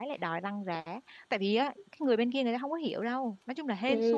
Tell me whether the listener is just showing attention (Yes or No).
No